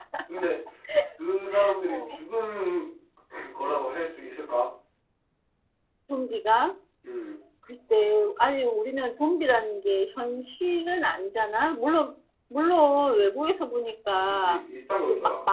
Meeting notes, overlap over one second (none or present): none